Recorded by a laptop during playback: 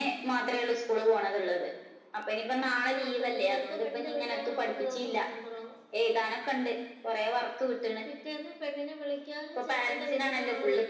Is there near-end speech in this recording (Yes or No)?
No